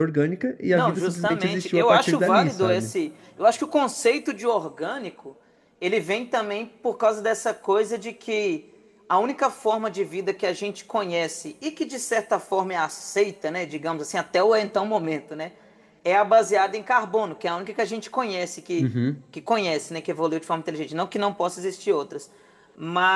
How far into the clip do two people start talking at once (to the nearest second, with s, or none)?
1 s